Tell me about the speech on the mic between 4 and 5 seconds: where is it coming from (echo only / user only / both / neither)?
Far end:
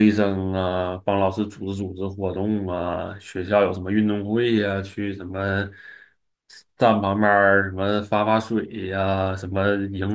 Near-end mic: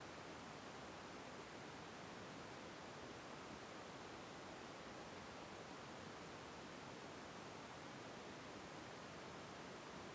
neither